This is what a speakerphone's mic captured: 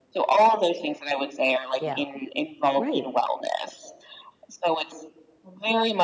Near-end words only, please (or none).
Yeah. Right.